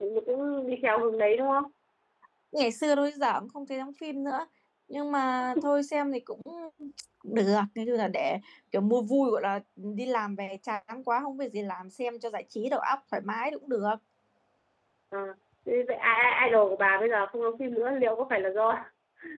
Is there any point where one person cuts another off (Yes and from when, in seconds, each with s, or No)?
No